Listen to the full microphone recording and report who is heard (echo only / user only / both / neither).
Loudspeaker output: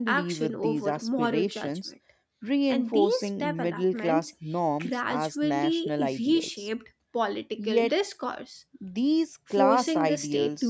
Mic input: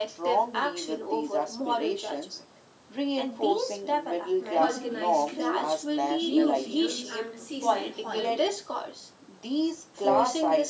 both